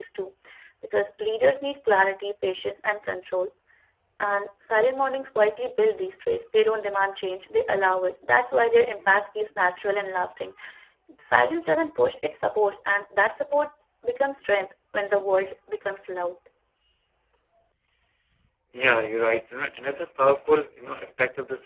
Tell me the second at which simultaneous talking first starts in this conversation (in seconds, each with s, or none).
none